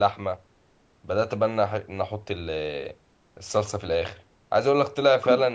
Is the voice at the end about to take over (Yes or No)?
No